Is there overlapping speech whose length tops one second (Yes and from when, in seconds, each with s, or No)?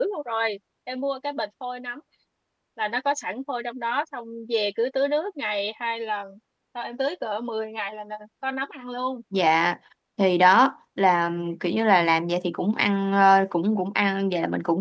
No